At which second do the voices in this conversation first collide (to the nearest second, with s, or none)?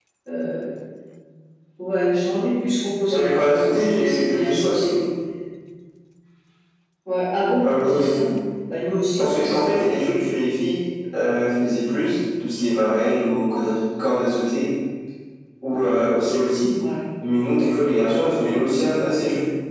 3 s